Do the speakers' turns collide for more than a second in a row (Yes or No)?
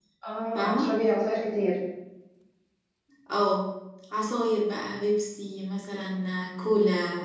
No